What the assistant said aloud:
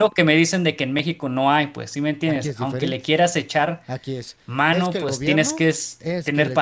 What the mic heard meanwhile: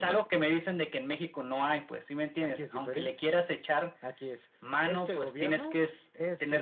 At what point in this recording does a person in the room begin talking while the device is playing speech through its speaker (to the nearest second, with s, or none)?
none